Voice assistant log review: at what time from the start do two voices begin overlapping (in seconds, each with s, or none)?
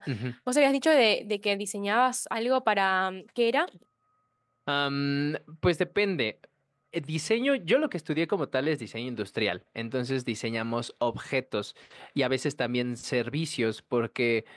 none